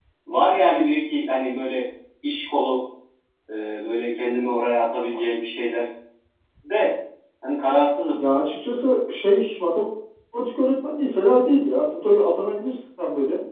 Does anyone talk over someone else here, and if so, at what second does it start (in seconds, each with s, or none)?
none